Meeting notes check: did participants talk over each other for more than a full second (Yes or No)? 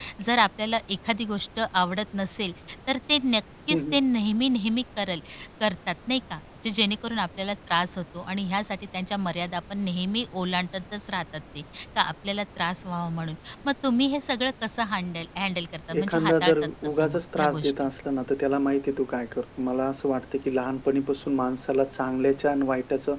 Yes